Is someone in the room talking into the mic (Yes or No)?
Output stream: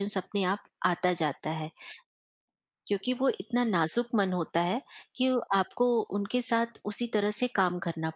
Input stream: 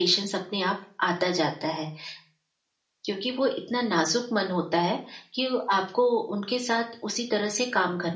No